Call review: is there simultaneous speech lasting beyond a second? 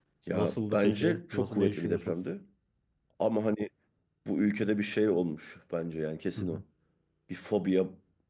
Yes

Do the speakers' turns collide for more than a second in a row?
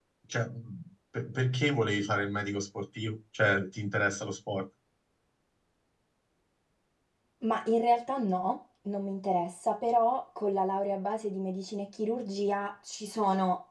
No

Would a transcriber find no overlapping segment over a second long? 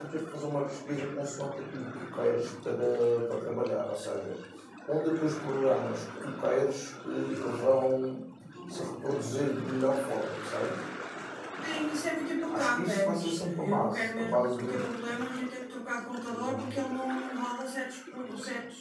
No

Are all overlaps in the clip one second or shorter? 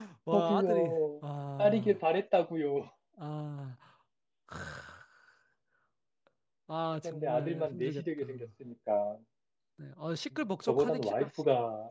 No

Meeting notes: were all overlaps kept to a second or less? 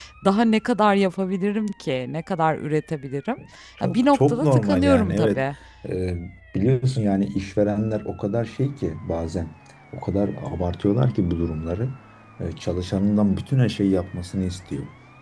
No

